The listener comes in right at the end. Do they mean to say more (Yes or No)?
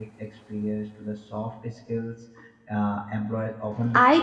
Yes